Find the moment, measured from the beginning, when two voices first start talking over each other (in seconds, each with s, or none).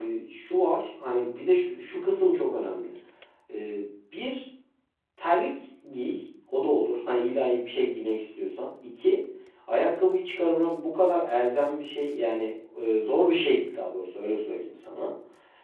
none